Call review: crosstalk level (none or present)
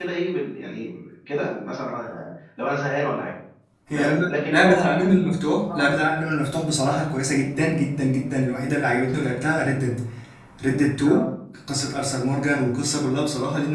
present